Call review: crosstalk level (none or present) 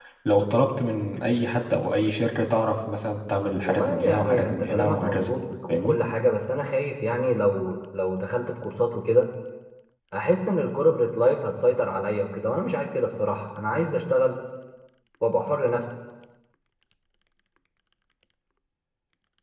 present